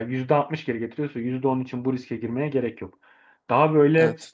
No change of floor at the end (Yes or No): Yes